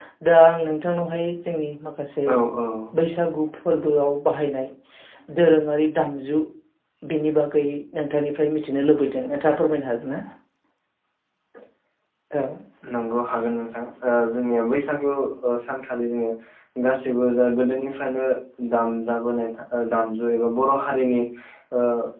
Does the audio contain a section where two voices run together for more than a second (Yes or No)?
No